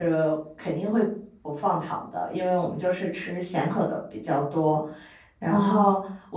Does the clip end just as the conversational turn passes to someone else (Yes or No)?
No